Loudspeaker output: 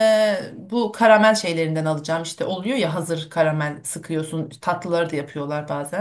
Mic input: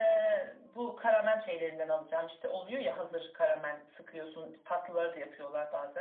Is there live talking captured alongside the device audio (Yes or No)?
No